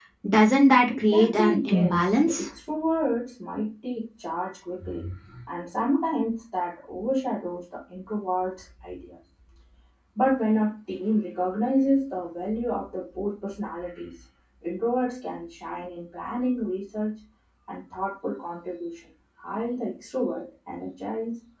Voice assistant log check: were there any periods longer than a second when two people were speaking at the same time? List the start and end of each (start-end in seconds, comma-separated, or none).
0.9-2.5